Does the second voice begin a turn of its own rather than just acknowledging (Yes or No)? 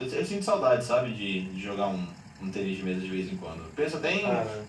No